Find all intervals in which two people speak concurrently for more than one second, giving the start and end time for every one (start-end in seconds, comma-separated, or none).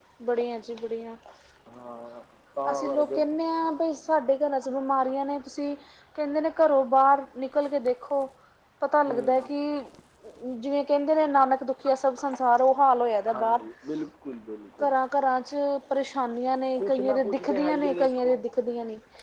16.8-18.4